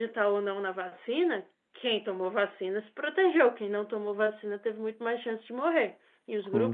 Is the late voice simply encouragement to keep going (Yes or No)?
Yes